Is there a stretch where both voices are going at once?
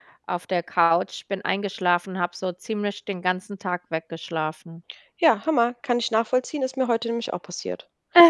No

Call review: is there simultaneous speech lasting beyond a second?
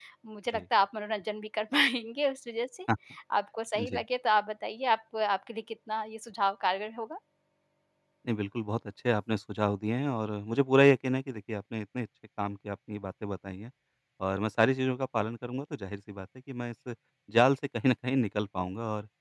No

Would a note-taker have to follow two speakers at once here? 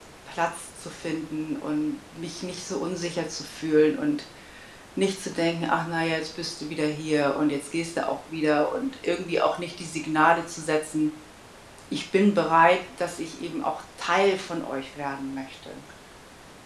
No

